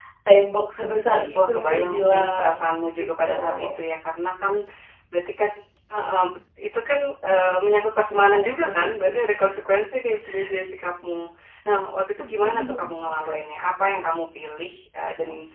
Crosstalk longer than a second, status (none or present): present